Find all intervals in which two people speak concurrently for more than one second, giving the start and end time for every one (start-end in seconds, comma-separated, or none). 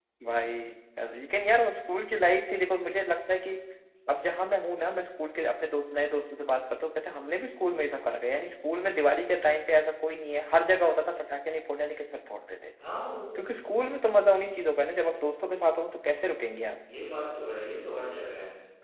none